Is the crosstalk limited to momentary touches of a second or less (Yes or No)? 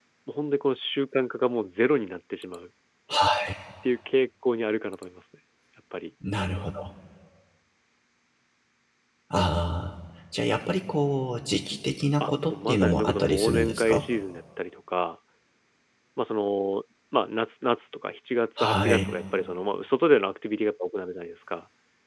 No